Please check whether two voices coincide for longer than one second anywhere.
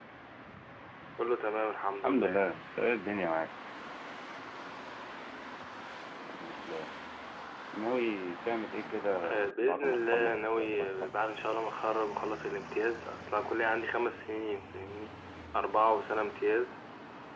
Yes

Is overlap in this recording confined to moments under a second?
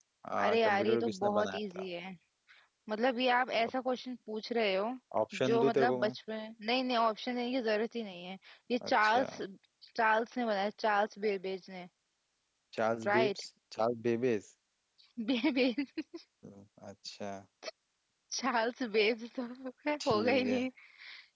No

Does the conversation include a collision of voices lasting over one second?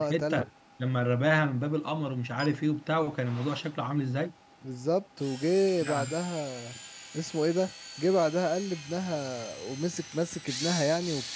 No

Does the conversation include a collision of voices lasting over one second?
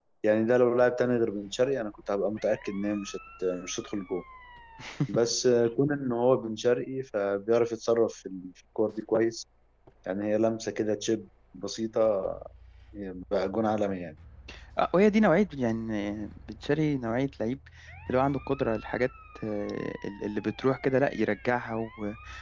No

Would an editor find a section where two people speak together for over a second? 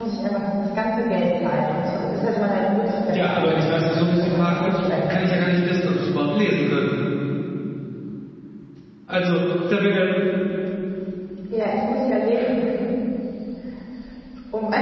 Yes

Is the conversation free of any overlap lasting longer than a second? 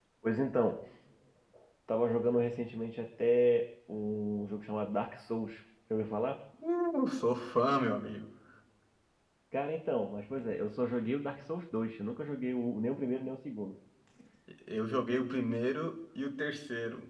Yes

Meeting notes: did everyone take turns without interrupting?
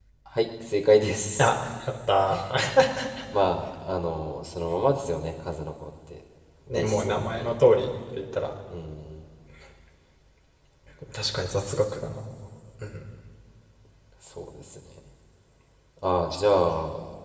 No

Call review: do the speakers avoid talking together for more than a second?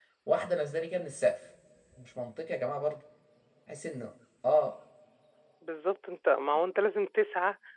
Yes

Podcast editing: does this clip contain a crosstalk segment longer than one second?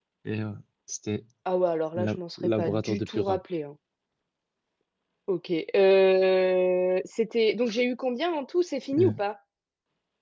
Yes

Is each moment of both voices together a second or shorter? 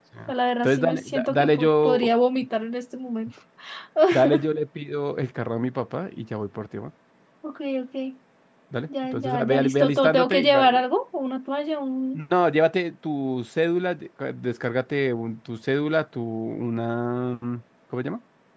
No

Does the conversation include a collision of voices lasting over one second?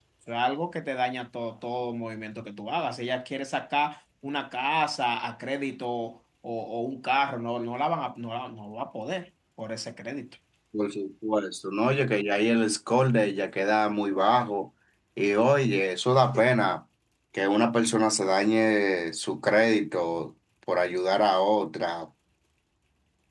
No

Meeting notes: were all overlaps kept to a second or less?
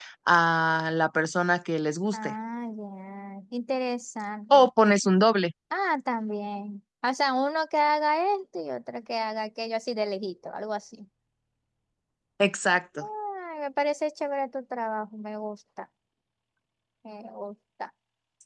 Yes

